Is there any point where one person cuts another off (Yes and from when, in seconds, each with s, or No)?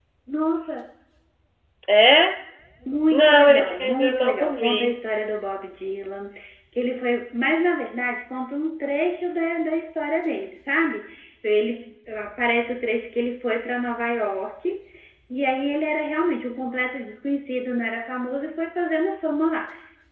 Yes, from 3.1 s